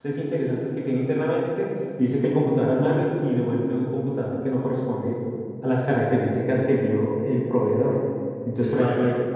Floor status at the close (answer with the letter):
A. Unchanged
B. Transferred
A